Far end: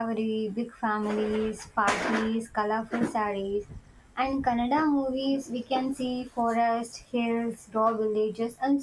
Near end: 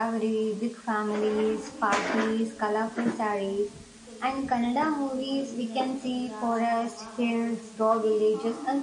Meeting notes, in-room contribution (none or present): present